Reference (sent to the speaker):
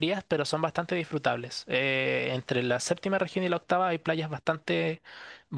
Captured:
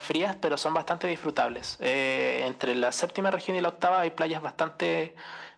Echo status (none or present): present